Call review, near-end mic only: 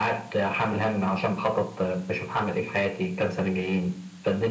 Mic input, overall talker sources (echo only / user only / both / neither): echo only